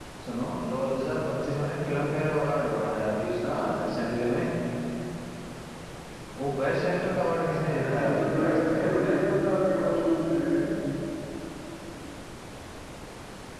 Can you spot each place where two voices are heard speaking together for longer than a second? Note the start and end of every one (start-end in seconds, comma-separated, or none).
7.7-8.9